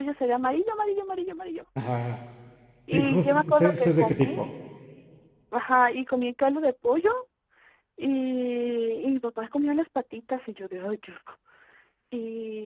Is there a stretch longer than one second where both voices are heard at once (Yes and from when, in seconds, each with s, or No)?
Yes, from 2.9 s